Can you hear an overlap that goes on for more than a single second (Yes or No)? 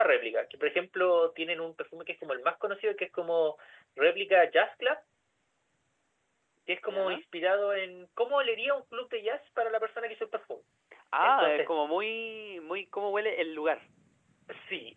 No